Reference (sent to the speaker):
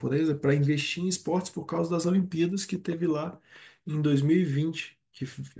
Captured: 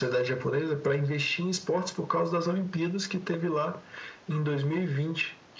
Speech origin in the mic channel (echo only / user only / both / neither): echo only